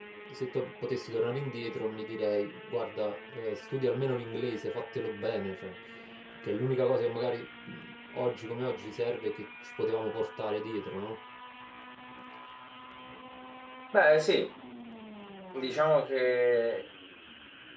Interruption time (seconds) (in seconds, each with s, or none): none